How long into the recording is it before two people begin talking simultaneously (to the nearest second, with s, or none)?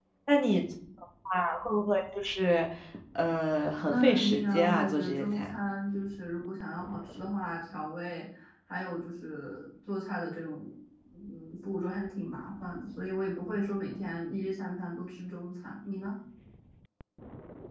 4 s